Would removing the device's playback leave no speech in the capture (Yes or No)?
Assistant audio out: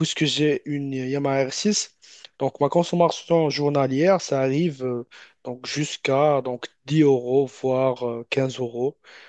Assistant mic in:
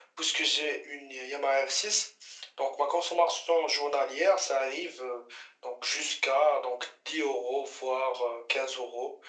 Yes